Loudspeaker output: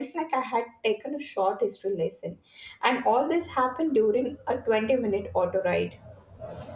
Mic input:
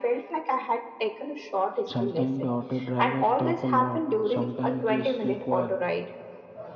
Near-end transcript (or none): Sometimes the auto drivers talk a lot, sometimes they stay quiet,